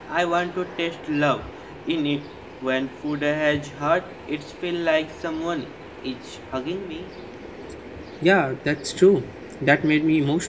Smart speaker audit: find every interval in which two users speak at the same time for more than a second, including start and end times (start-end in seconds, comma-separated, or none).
none